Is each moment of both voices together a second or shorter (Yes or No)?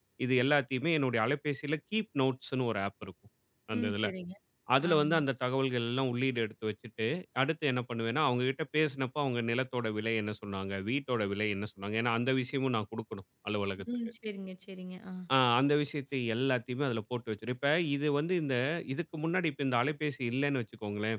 Yes